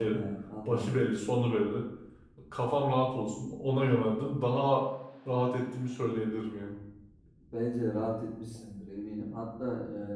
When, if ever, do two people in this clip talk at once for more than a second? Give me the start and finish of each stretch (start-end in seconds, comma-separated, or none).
none